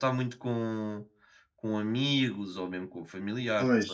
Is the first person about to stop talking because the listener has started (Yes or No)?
Yes